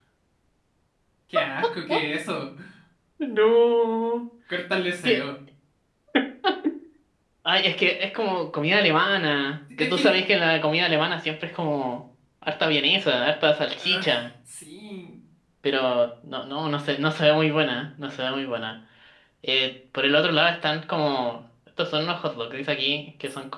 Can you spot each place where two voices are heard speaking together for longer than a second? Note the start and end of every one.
none

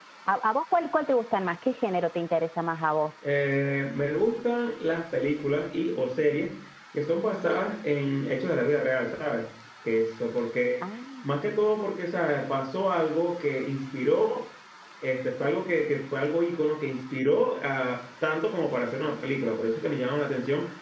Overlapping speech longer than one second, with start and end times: none

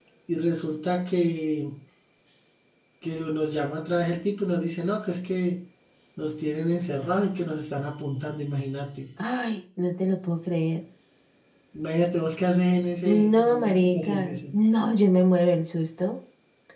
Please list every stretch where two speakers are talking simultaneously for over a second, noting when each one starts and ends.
13.0-14.4

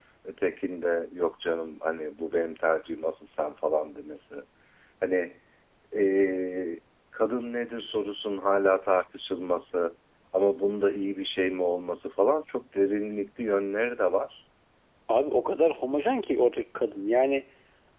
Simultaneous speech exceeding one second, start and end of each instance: none

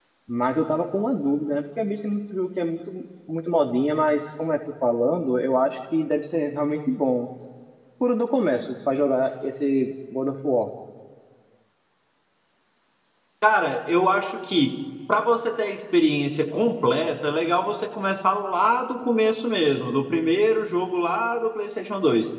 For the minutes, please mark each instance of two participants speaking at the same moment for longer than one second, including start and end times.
none

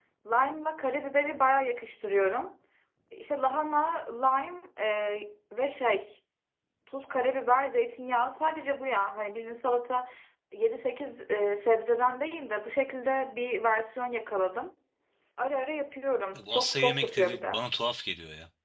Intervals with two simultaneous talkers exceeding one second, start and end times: 16.3-17.6

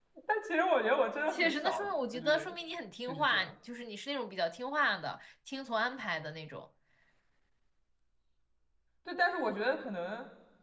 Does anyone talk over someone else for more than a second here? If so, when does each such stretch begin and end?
1.3-2.5

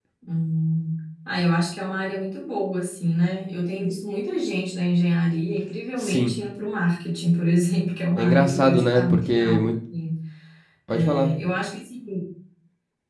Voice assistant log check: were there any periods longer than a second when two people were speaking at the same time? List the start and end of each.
8.2-9.7

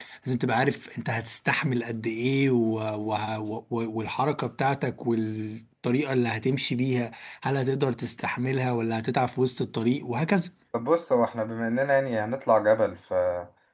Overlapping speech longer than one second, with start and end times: none

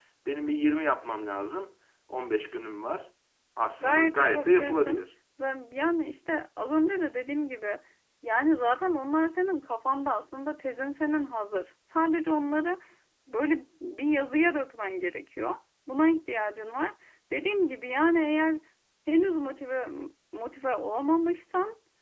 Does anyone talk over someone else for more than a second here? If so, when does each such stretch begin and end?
3.8-5.0

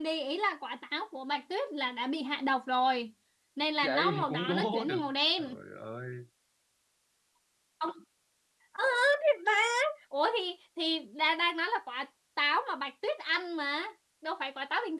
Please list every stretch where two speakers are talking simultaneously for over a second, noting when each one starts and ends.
3.9-5.5

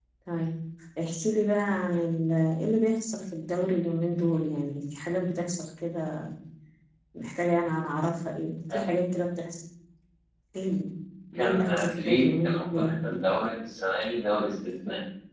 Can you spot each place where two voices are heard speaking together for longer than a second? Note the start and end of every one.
11.3-12.9

